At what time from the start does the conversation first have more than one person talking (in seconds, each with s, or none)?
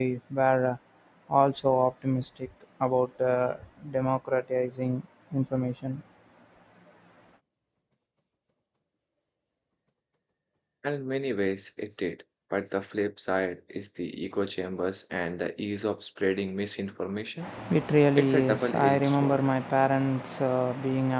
18.2 s